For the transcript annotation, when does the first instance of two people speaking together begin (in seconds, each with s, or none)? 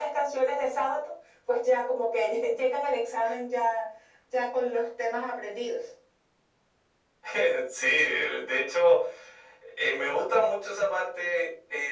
none